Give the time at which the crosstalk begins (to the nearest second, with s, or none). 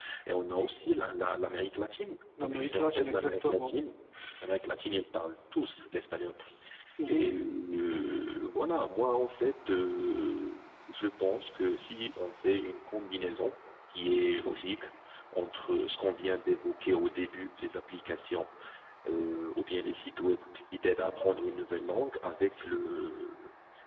2 s